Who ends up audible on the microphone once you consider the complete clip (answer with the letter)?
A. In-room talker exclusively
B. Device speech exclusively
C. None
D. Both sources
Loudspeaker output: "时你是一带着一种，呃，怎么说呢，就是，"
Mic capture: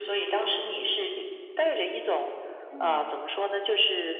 D